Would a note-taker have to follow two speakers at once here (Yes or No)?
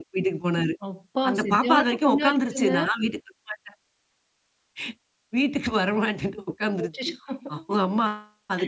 Yes